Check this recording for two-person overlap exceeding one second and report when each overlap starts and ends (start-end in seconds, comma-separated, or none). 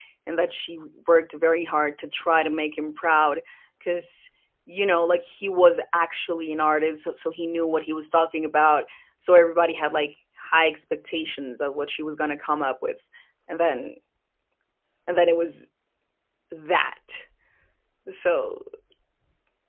none